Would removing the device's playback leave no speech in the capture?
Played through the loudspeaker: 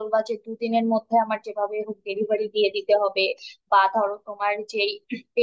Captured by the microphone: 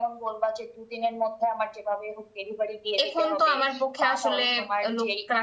No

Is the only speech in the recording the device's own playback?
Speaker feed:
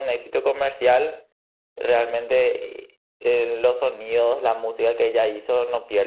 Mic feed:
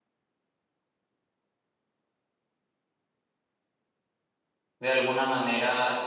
No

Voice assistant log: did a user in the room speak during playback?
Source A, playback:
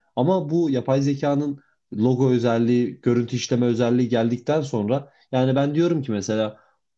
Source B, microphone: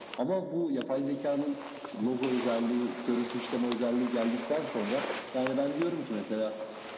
No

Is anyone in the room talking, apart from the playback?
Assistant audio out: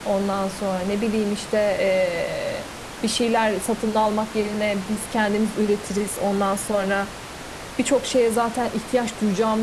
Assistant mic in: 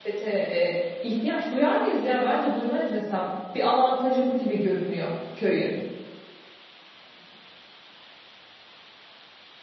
Yes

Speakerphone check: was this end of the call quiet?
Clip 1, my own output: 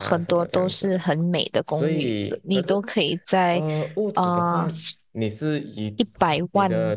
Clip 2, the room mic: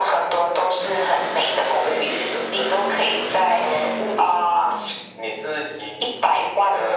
Yes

